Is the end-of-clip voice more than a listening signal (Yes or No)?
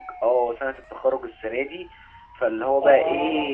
No